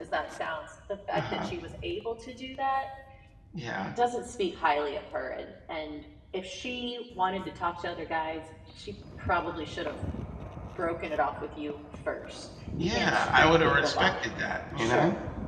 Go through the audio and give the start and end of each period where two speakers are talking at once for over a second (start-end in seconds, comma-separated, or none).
12.8-14.1